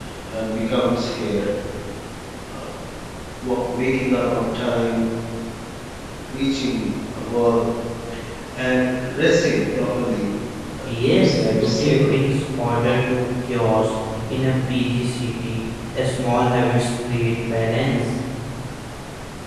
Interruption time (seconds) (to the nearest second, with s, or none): 11 s